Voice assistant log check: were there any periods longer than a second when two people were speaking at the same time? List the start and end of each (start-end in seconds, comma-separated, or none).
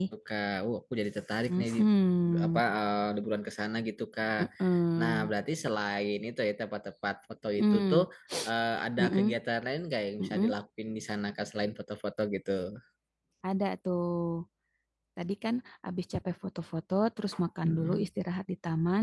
none